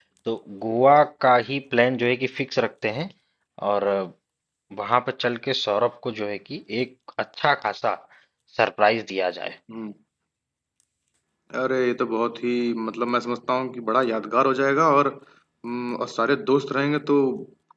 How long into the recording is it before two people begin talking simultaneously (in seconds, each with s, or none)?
none